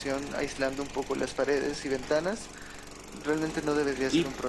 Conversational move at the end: taking over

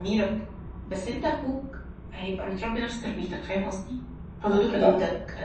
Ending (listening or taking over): listening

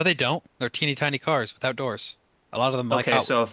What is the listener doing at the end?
taking over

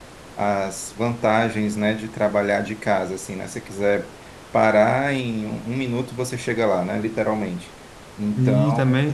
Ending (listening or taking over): taking over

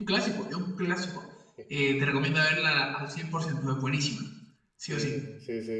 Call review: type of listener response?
taking over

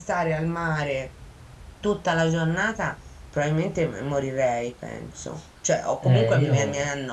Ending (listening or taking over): listening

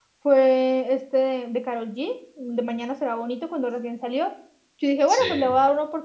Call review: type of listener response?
listening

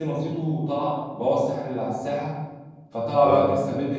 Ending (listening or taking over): listening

